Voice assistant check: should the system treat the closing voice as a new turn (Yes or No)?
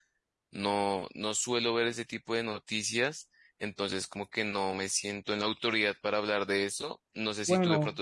No